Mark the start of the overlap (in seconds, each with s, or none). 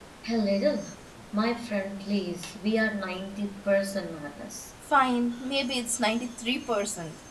none